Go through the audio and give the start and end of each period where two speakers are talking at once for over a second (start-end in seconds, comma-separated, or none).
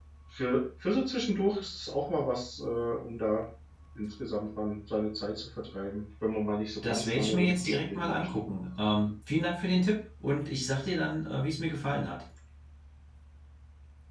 6.9-8.3